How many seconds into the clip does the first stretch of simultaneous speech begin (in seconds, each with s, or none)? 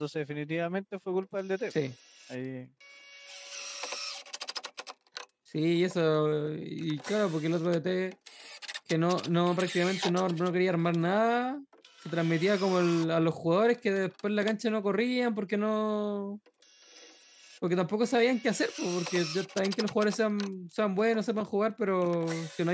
none